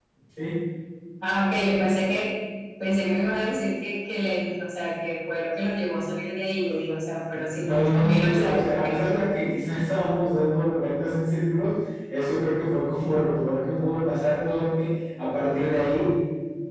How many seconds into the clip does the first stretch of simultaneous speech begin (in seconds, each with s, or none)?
7.6 s